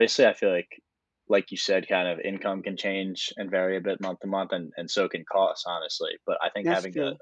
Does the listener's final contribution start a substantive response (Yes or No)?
No